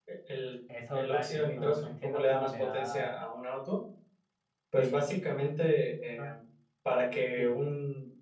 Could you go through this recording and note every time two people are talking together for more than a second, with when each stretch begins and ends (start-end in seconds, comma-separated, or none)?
0.9-3.1